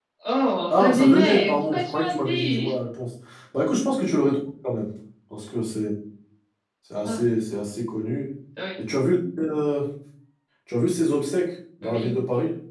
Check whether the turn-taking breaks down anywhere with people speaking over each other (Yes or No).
Yes